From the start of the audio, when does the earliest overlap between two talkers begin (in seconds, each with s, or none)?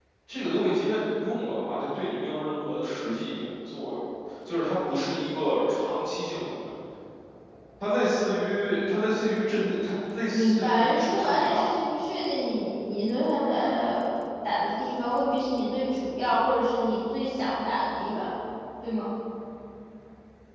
10.3 s